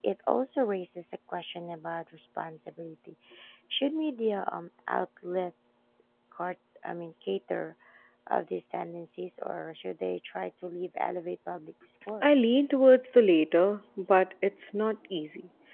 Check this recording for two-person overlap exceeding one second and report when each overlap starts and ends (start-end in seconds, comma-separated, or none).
none